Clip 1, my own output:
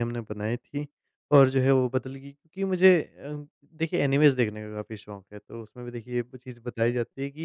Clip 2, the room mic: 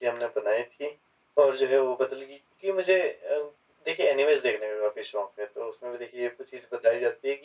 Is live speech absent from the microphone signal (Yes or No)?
Yes